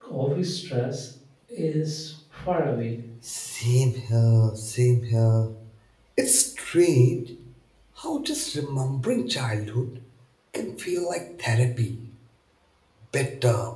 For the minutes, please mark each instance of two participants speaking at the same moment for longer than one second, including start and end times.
none

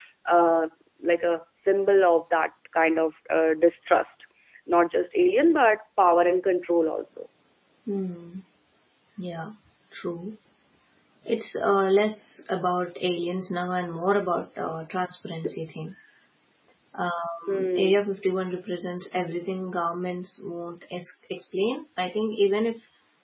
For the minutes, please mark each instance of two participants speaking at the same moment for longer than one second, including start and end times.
none

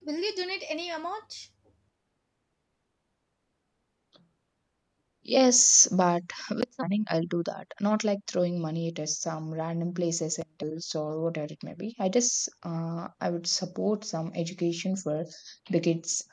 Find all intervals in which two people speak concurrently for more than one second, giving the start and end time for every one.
none

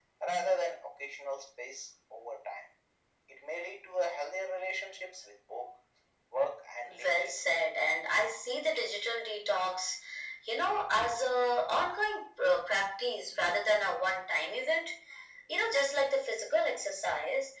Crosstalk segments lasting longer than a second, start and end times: none

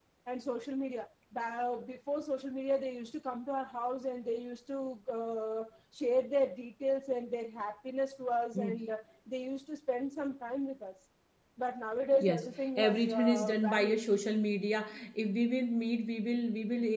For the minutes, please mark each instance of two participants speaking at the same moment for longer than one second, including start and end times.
12.2-14.1

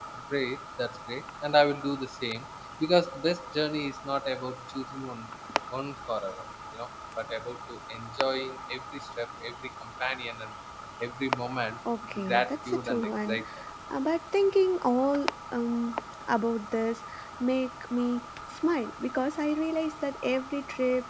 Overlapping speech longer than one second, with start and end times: 12.2-13.4

